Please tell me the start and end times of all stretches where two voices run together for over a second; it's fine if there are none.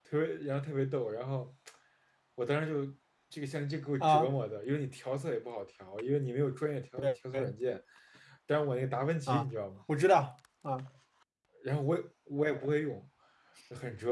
none

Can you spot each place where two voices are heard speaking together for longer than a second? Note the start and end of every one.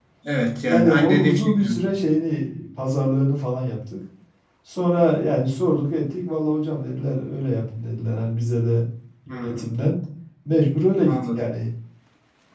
0.7-1.9

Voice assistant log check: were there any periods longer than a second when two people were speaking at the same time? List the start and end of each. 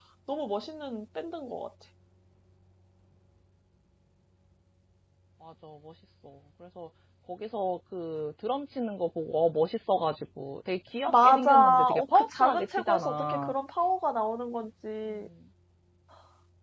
11.1-13.5

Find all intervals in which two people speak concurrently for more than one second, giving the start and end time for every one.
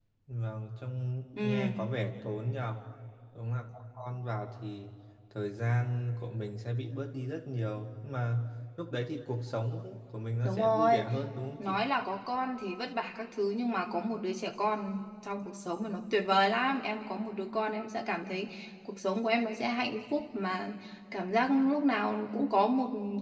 none

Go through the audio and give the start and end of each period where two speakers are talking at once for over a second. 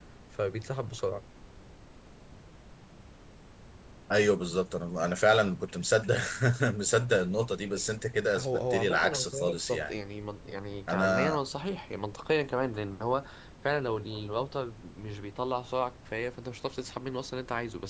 8.4-10.0

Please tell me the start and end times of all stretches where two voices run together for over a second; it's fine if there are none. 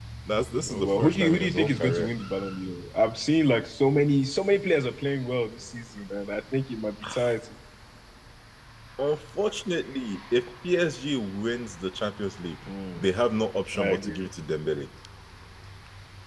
0.6-2.1

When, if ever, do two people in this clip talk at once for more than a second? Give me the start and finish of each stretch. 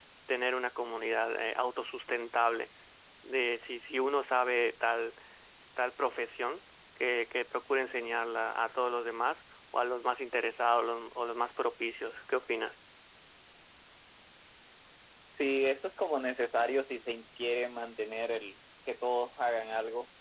none

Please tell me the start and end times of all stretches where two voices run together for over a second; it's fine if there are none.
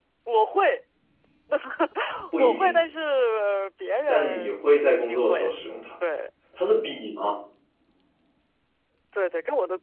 4.1-5.5

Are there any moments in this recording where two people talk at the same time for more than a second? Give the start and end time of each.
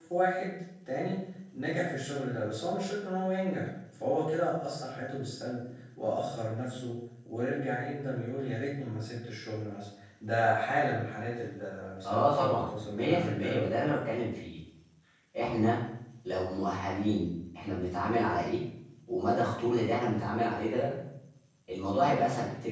12.0-13.7

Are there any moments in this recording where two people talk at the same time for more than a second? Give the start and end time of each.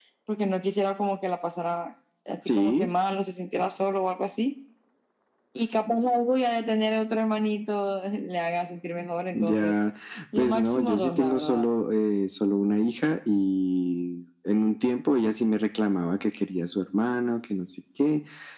10.4-11.7

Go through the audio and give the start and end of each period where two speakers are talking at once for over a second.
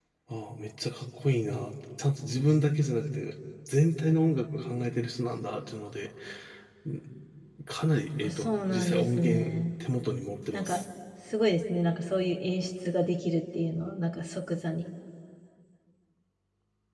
8.2-9.5

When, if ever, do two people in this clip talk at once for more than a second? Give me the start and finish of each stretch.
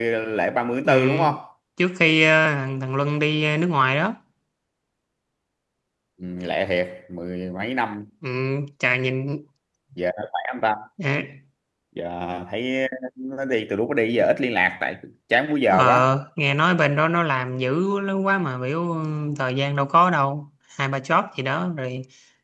none

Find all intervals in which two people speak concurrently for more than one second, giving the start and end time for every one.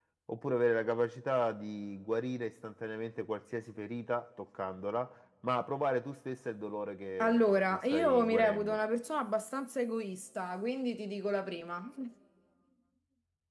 7.2-8.8

